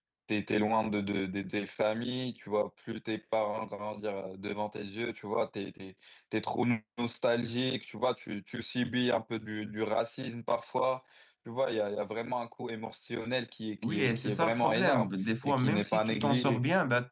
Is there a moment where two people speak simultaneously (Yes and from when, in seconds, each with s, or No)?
Yes, from 13.8 s